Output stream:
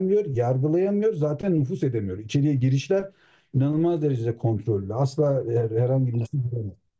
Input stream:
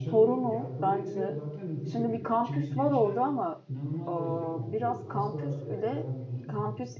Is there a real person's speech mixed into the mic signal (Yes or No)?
Yes